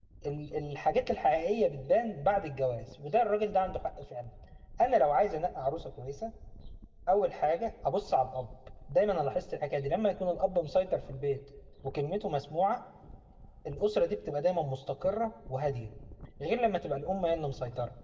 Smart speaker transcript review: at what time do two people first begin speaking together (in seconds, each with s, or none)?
none